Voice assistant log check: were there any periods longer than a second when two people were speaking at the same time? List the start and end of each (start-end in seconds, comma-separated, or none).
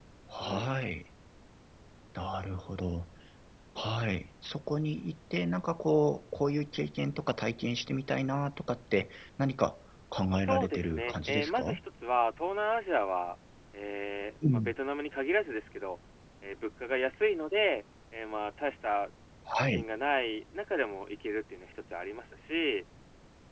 10.4-11.8